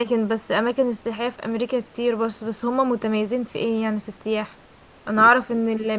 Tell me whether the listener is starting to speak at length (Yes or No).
No